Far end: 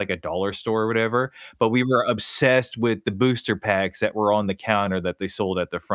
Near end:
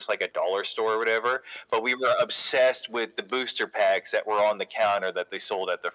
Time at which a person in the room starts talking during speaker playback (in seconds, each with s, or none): none